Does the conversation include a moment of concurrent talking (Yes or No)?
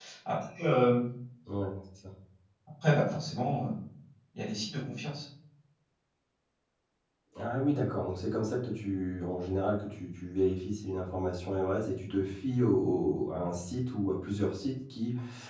No